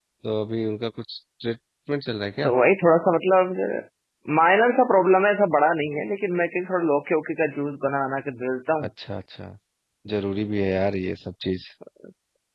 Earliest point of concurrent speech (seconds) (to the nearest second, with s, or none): none